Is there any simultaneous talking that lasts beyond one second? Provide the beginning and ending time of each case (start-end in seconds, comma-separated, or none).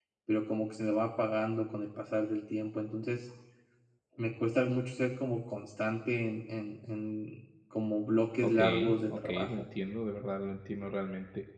8.4-9.7